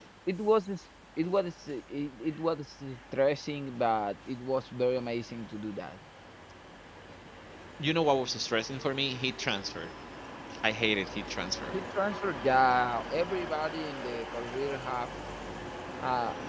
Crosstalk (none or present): none